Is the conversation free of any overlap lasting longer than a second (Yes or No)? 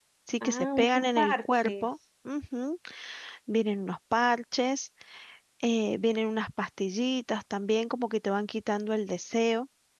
No